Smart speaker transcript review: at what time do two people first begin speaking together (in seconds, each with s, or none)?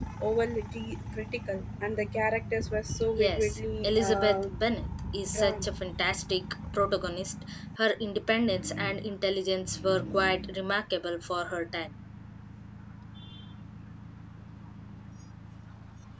3.2 s